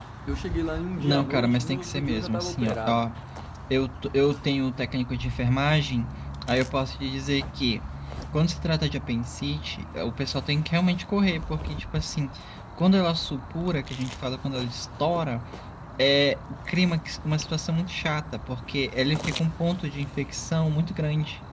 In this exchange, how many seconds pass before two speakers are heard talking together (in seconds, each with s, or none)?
1.0 s